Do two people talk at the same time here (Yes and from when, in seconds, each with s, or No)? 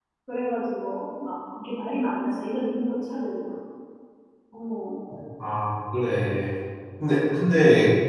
No